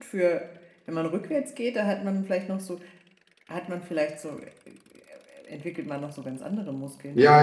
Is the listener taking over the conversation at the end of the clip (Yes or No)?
Yes